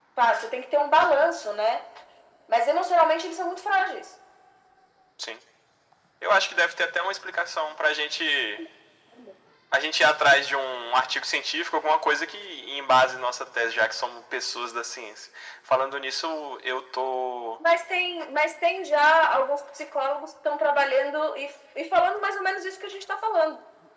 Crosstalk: none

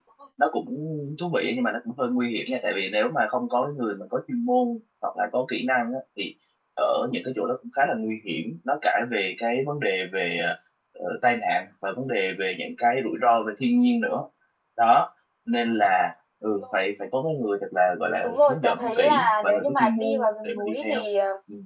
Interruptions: present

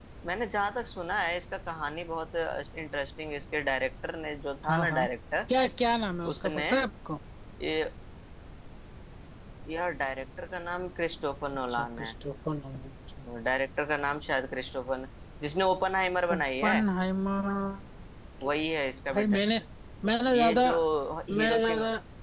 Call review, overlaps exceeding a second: none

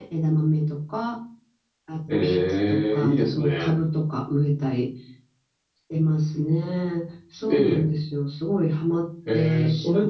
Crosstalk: present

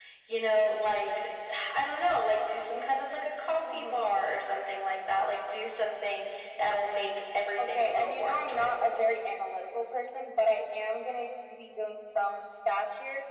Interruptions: present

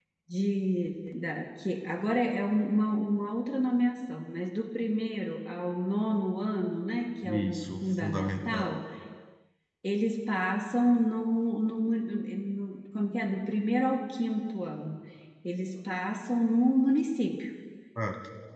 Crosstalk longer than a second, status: present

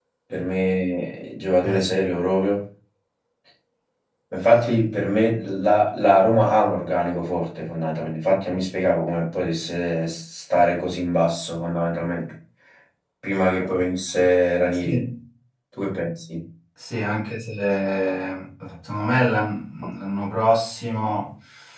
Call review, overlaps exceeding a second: none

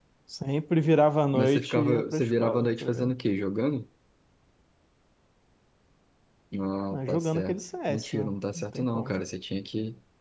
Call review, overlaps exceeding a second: present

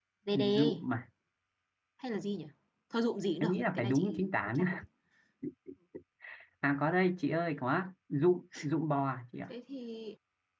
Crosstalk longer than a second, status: present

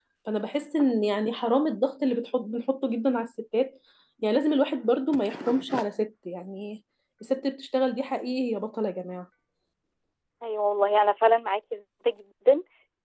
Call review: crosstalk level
none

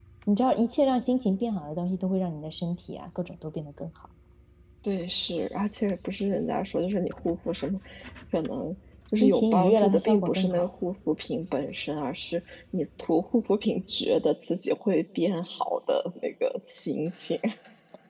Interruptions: present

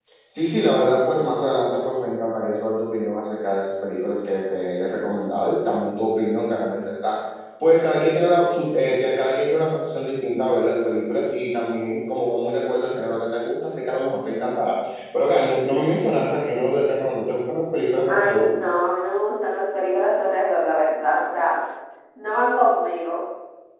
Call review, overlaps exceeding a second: none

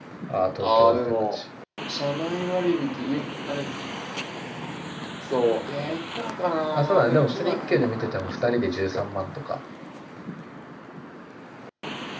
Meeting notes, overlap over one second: present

